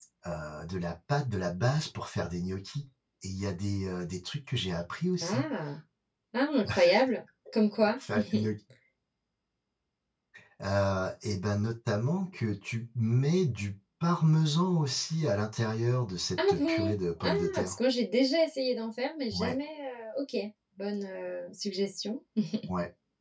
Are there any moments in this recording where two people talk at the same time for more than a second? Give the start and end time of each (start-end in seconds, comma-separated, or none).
16.4-17.7